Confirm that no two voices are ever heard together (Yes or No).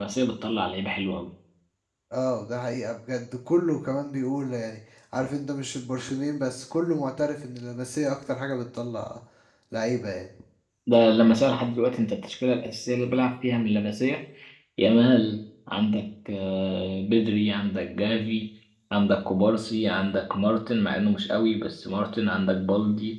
Yes